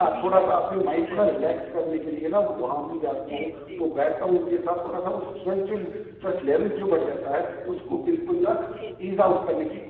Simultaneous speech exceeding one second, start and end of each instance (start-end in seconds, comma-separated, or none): none